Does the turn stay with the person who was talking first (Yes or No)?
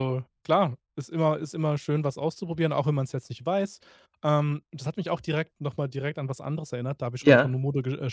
Yes